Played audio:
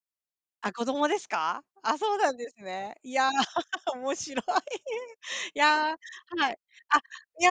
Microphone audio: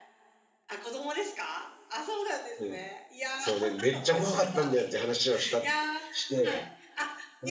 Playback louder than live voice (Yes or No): No